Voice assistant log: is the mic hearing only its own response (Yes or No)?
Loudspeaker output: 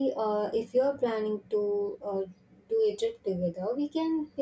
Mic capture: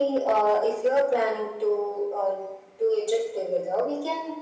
Yes